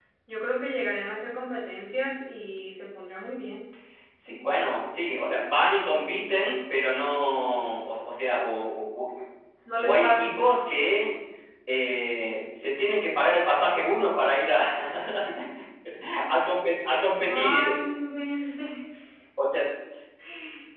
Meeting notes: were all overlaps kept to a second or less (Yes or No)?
Yes